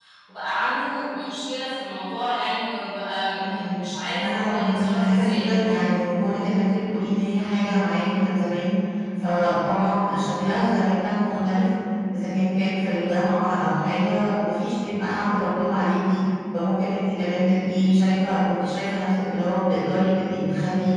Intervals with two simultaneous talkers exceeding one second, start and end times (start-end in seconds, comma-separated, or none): 4.2-5.8